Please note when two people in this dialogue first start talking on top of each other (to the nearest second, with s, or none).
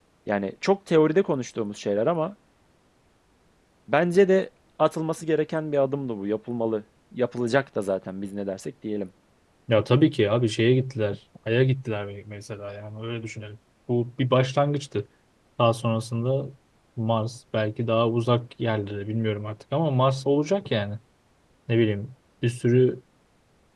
none